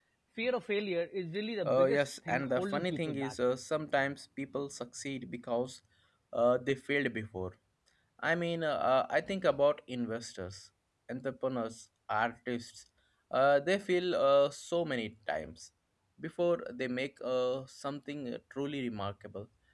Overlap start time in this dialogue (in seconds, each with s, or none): 1.7 s